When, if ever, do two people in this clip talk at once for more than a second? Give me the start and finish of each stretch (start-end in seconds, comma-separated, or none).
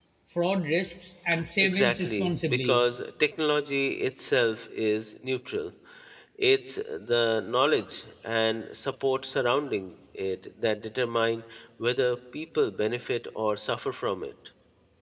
1.6-2.8